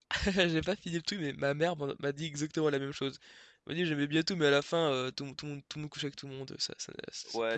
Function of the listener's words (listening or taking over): taking over